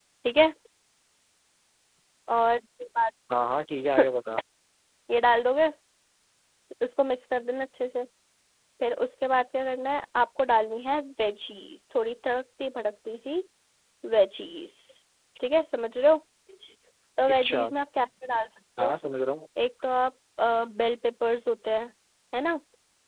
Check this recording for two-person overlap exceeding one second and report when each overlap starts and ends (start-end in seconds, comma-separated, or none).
none